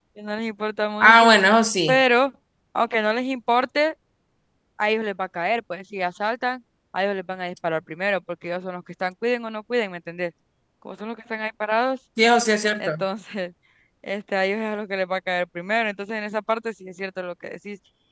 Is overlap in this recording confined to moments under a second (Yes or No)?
Yes